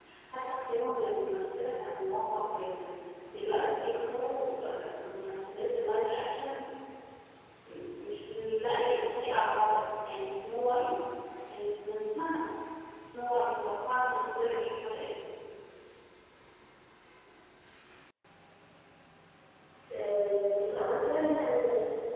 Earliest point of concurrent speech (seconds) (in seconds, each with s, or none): none